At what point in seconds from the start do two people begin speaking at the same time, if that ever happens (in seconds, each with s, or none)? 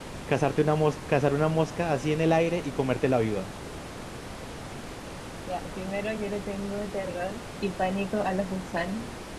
none